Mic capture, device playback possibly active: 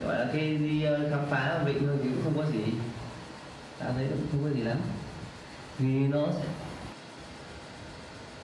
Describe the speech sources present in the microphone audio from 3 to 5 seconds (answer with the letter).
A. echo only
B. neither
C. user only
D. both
A